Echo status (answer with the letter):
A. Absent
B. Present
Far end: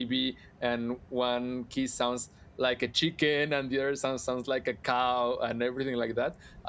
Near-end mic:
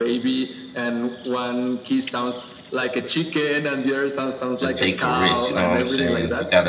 B